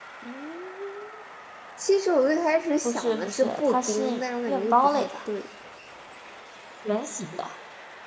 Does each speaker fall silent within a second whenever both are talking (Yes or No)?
No